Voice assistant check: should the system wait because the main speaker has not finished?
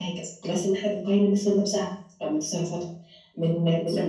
Yes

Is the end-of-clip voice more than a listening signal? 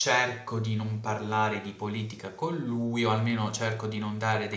No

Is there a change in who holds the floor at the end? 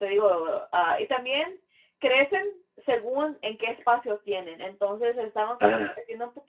No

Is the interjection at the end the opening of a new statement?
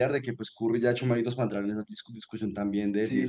Yes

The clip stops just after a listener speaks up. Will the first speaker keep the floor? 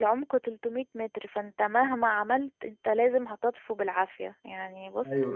Yes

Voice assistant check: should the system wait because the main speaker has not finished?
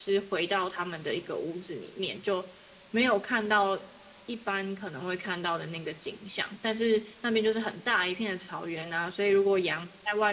Yes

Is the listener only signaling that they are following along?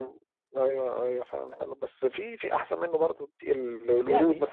Yes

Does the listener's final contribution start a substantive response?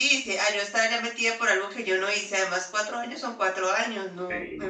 Yes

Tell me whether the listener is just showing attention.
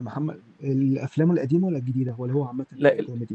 No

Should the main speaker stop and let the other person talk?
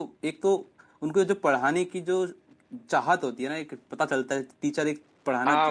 Yes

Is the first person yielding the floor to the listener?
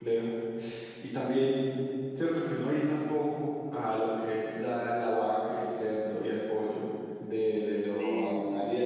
No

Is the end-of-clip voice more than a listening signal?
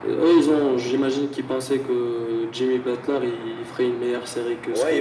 Yes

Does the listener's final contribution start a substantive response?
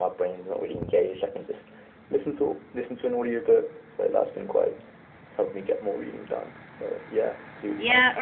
Yes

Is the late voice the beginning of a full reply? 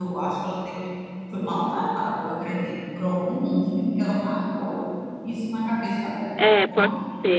Yes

